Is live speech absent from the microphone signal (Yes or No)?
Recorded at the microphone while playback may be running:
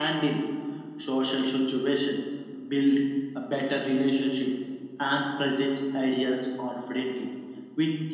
Yes